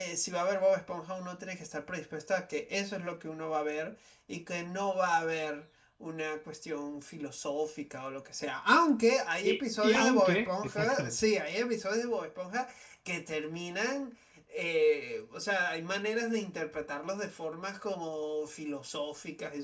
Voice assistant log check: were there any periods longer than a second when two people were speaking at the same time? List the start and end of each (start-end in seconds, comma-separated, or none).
9.4-11.2